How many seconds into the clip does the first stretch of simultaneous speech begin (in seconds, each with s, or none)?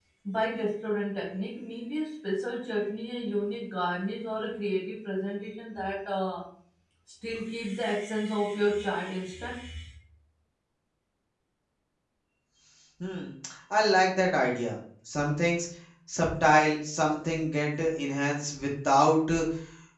none